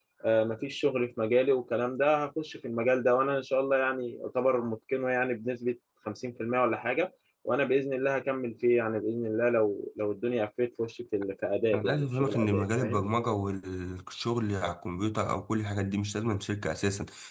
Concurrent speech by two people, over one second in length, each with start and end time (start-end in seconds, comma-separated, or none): 11.7-13.0